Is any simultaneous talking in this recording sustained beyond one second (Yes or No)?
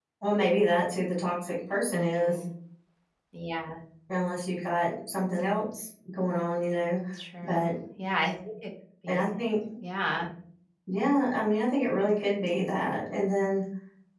No